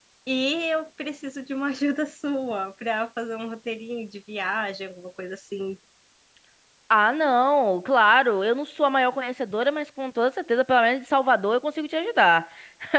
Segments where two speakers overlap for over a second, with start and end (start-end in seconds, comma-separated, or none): none